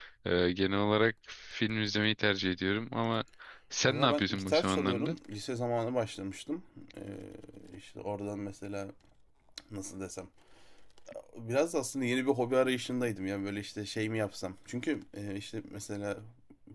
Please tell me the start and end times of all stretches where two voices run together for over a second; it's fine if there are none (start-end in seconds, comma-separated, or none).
3.9-5.2